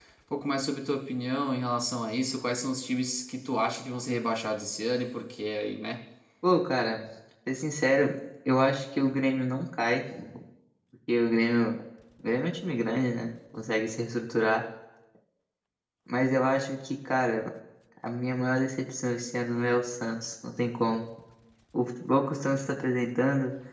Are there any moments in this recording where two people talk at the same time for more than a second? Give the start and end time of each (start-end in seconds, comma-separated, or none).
none